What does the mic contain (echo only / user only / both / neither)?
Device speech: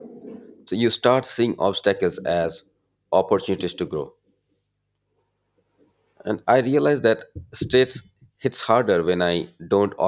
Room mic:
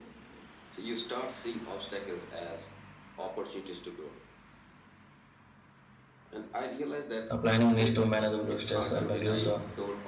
both